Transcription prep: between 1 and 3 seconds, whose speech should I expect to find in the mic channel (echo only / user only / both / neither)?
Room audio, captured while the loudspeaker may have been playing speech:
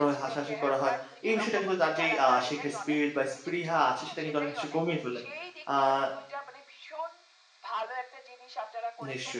both